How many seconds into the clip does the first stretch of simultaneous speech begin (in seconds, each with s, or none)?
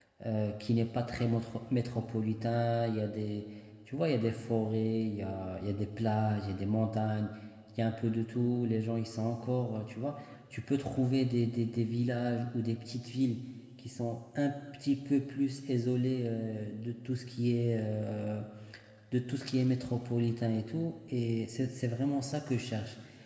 none